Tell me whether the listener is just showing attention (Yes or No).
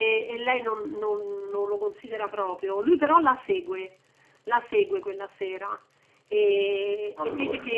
Yes